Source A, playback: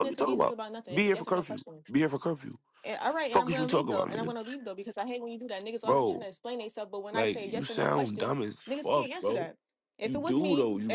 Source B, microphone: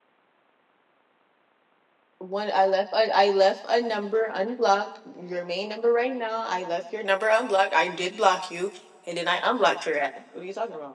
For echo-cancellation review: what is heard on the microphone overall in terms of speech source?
user only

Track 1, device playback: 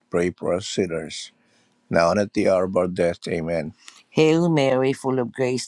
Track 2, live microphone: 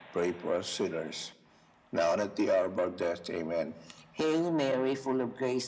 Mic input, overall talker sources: echo only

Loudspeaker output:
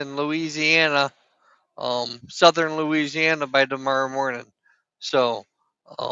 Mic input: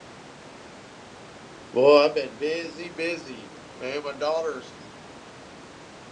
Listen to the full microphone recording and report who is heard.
user only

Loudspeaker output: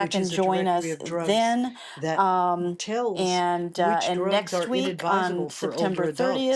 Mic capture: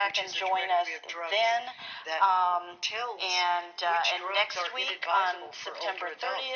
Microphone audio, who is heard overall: echo only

